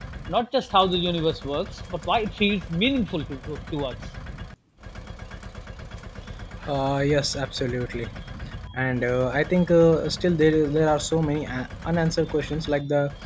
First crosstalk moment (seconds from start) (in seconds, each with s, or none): none